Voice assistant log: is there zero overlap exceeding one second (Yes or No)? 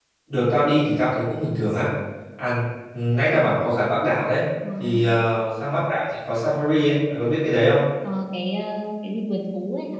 Yes